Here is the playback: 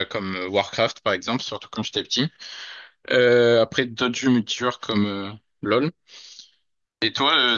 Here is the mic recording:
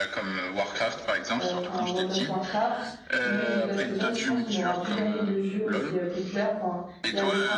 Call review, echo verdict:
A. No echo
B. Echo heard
B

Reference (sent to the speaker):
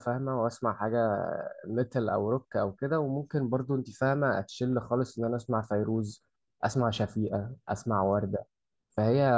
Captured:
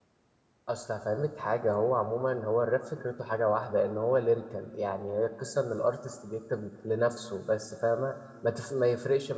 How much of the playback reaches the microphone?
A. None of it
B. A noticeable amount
A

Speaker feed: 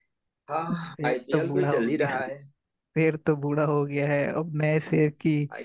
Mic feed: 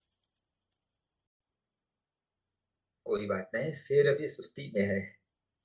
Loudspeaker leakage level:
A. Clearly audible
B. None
B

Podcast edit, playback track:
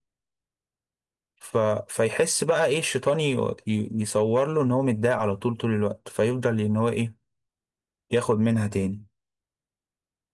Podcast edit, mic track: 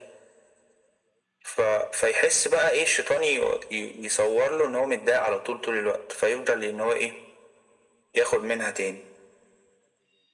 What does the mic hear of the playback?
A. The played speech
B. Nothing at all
A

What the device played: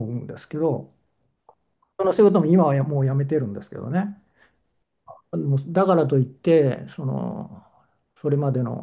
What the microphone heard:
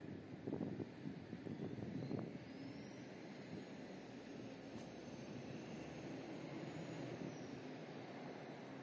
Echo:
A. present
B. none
B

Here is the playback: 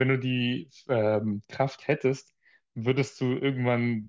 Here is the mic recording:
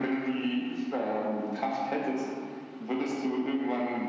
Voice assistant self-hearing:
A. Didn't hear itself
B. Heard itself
B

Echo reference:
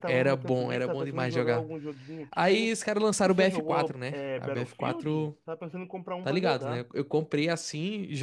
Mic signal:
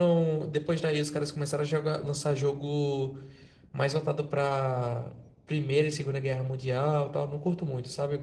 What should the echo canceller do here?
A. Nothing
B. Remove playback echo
A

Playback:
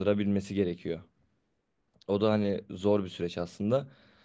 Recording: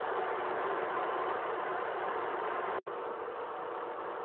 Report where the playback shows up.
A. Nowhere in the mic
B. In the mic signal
A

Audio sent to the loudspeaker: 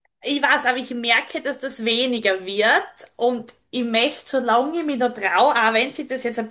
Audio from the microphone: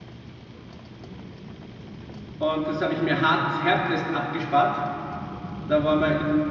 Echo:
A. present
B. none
B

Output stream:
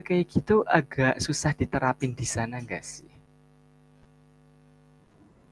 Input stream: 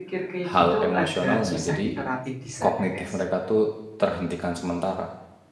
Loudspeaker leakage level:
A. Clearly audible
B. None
A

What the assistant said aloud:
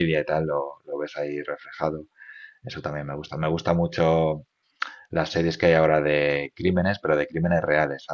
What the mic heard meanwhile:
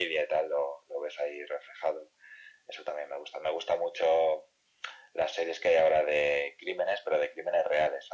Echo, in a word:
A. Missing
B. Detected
B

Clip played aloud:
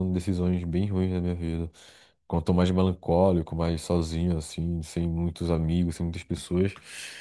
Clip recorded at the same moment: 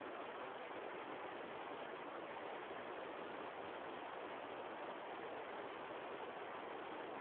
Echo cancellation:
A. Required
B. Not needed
B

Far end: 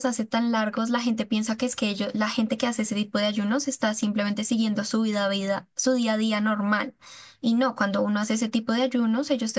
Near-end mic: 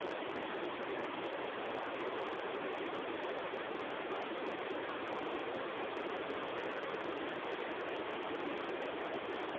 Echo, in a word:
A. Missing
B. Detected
A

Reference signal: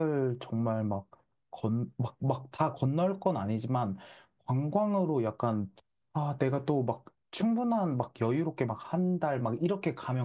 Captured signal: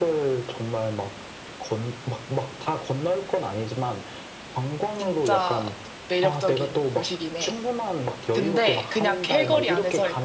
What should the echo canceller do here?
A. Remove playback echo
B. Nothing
A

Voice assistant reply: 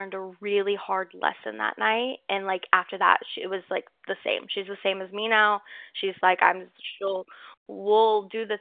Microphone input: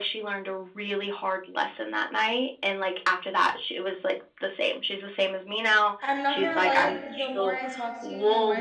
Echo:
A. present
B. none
A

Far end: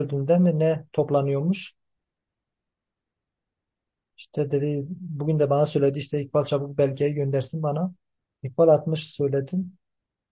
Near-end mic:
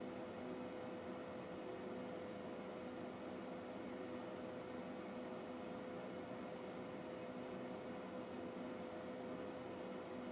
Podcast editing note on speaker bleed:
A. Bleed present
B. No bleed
B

